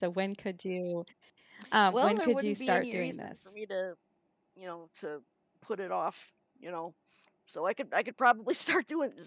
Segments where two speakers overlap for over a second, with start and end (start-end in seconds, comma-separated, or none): 1.9-3.3